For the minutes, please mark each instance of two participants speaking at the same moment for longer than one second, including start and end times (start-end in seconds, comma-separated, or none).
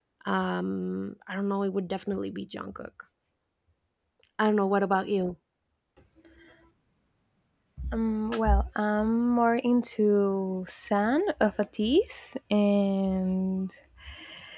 none